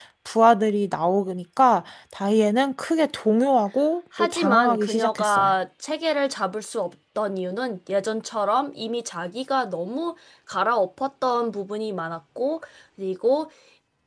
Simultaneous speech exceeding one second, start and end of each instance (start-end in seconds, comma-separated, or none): 4.2-5.6